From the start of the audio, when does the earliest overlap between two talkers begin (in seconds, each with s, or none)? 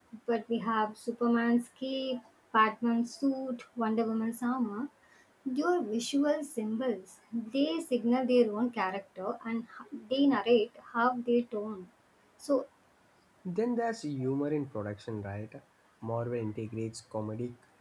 none